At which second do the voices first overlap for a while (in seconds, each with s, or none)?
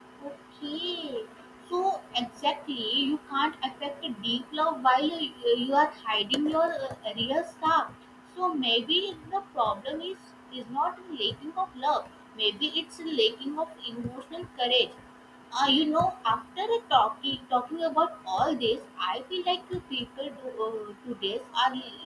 none